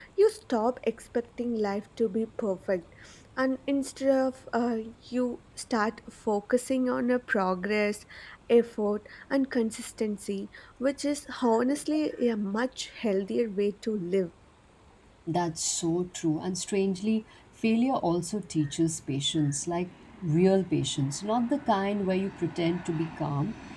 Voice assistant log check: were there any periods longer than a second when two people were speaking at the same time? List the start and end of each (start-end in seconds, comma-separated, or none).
none